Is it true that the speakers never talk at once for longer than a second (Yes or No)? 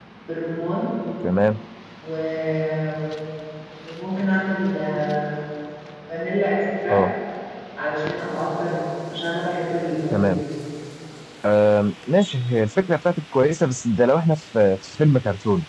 Yes